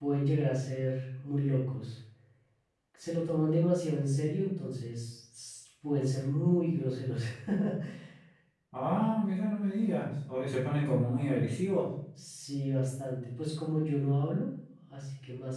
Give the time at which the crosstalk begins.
none

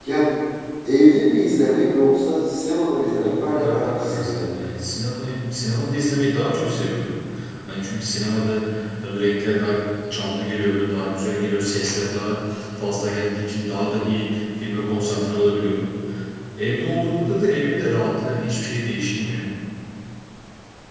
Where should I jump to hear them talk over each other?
3.0 s

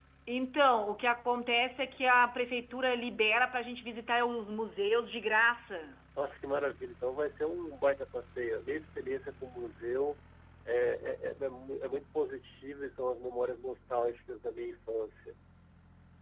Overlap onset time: none

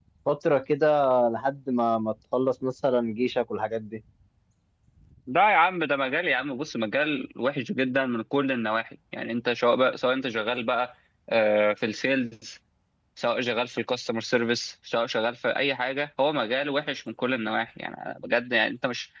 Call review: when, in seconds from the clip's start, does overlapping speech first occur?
none

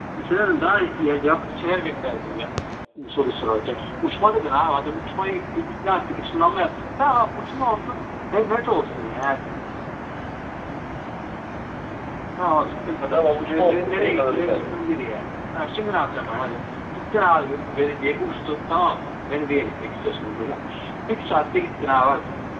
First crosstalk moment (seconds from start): 13.1 s

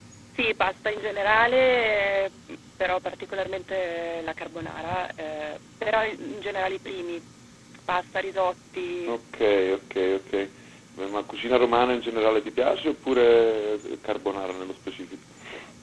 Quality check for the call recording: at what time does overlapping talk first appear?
none

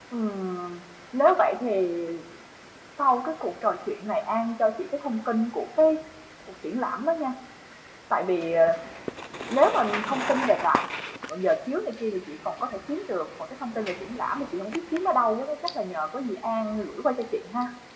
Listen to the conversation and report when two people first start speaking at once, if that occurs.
none

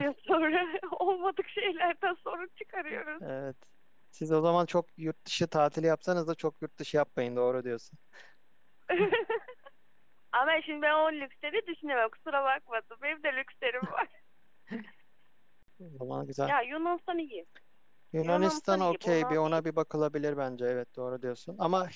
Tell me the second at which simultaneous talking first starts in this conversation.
18.3 s

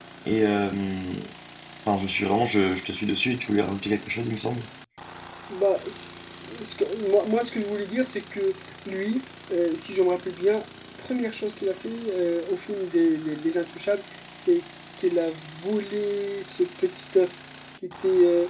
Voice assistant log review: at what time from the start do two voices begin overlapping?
none

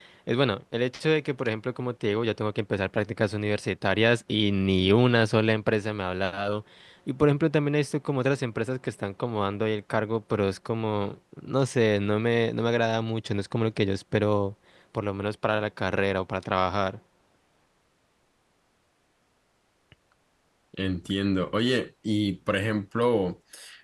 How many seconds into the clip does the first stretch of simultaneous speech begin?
none

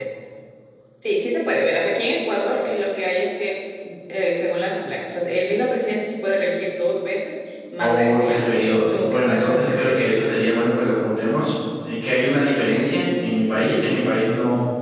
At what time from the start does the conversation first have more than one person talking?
7.8 s

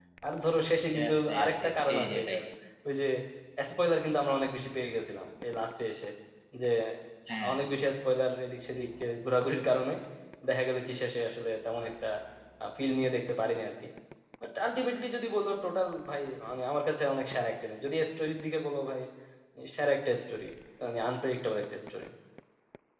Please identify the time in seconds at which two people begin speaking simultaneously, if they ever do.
0.9 s

